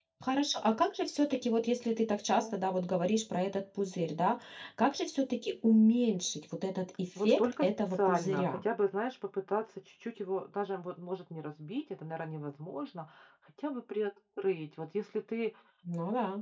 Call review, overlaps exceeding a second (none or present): present